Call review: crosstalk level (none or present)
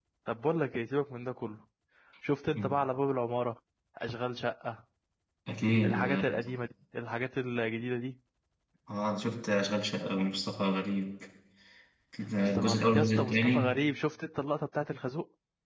present